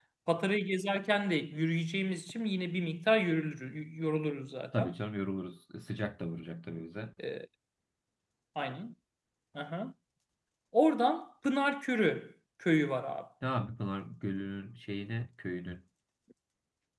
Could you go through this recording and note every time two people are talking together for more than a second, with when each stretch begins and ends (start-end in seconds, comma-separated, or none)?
none